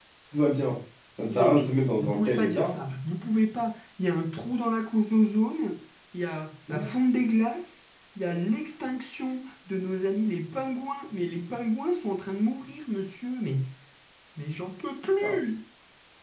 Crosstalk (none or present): present